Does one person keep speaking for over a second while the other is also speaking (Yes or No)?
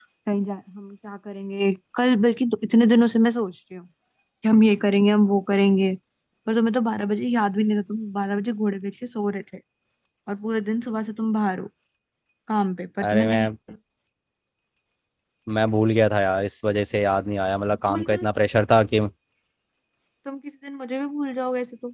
No